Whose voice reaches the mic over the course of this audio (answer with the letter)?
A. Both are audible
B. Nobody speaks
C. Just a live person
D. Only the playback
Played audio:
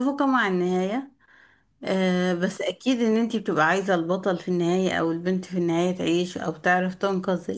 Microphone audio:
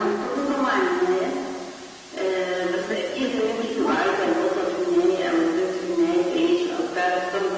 A